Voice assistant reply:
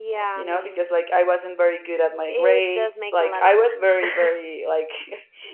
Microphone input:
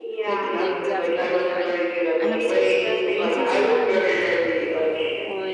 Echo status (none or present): present